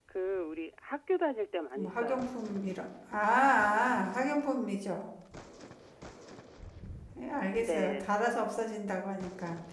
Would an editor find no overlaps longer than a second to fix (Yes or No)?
Yes